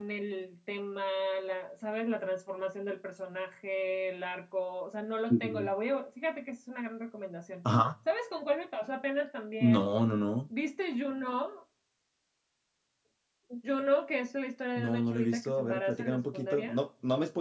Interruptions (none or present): present